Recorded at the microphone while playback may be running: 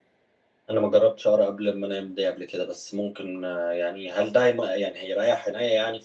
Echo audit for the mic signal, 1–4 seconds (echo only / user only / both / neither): user only